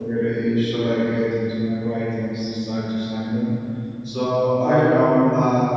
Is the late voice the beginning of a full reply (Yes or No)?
No